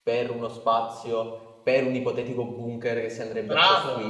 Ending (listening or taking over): taking over